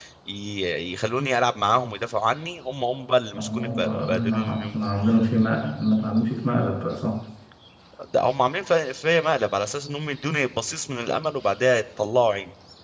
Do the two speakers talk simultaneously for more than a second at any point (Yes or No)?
Yes